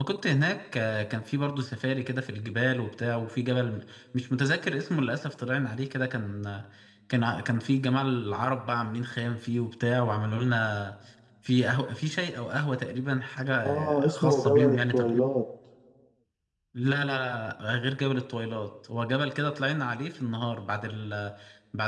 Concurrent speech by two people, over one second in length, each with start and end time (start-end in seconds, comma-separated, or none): 13.6-15.2